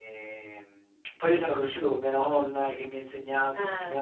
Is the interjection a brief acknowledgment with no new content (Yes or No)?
Yes